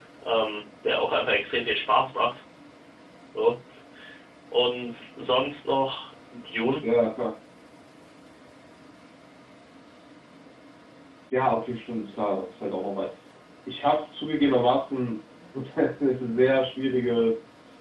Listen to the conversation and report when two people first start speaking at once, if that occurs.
none

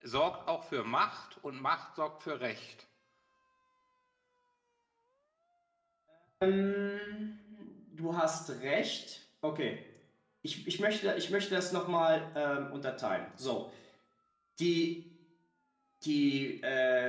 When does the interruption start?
none

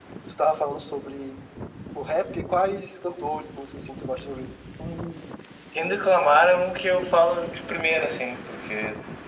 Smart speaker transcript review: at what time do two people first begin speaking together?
none

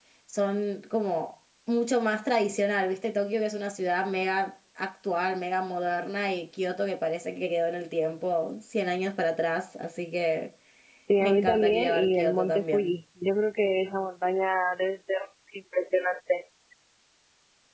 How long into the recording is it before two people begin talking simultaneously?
11 s

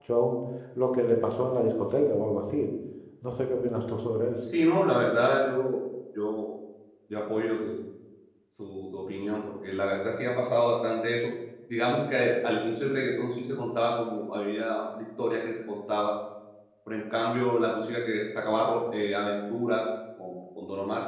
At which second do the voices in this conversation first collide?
none

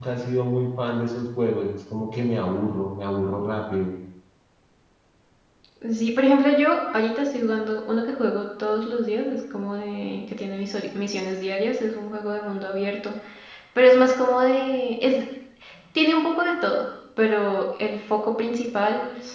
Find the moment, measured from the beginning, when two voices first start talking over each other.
none

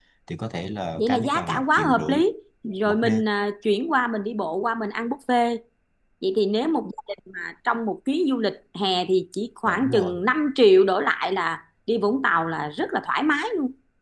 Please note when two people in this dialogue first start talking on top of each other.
1 s

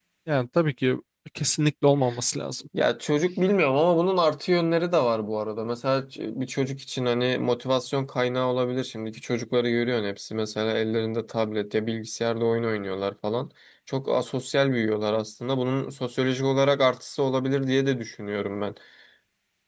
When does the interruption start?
none

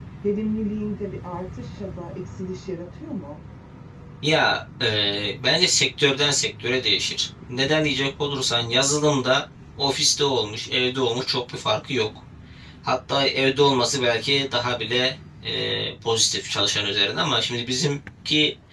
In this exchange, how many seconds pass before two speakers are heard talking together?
none

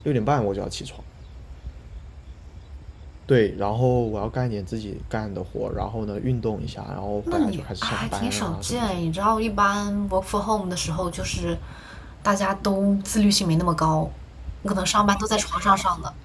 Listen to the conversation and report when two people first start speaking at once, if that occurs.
7 s

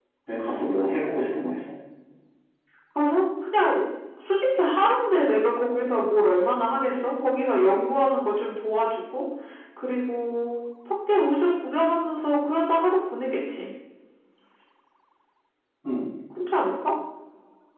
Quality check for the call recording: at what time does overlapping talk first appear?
none

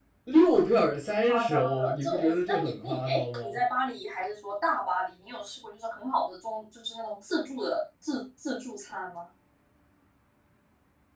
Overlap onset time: 1 s

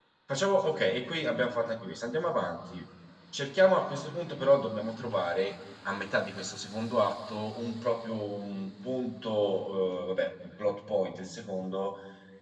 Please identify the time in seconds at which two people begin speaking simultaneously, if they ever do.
none

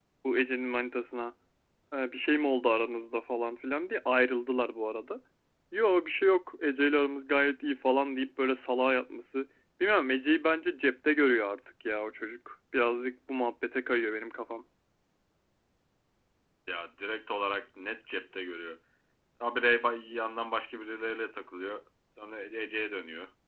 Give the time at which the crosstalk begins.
none

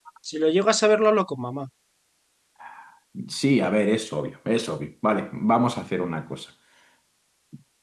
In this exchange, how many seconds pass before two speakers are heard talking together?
none

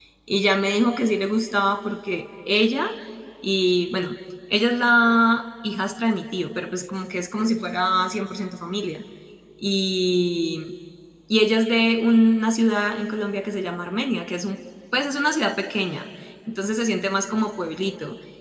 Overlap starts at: none

